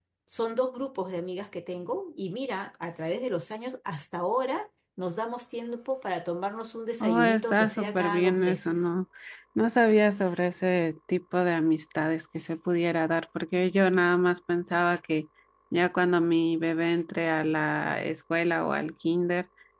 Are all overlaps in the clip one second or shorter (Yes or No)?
No